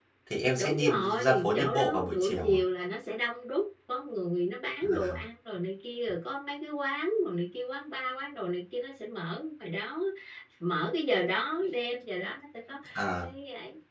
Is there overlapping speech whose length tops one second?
Yes, from 0.5 s

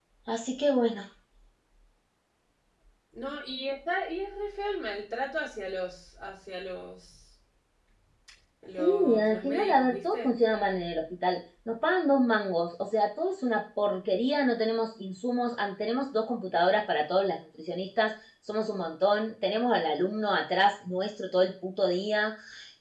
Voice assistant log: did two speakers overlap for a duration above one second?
Yes, from 8.8 s

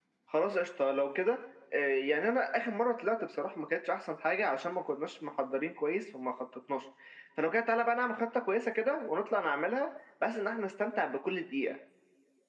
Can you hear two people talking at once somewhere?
No

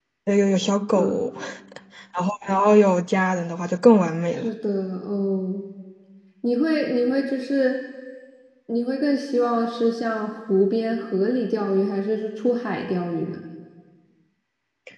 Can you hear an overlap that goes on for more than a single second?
No

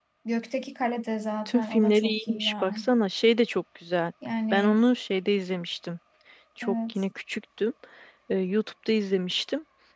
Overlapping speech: Yes, from 1.5 s

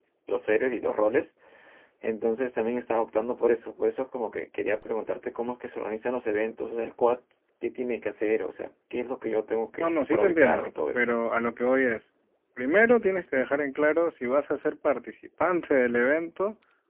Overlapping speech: Yes, from 9.8 s

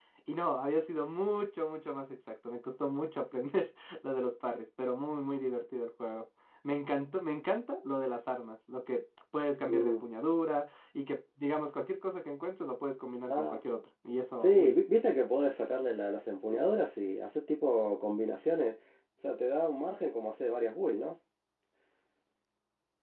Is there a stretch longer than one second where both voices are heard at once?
No

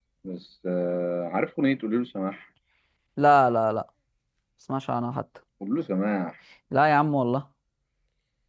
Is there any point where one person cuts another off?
No

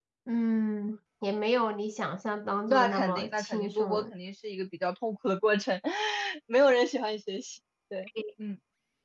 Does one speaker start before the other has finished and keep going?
Yes, from 2.7 s

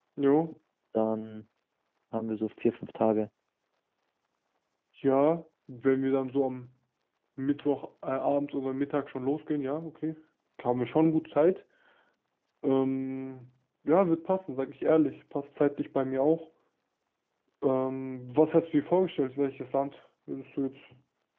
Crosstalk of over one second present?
No

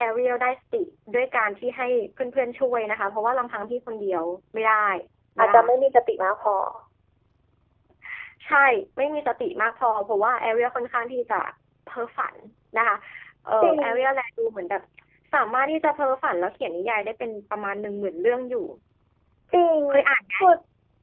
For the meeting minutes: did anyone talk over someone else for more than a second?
No

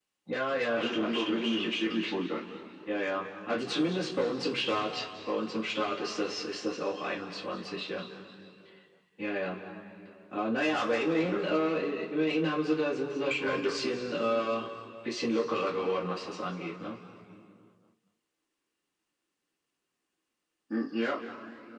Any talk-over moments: Yes, from 0.8 s

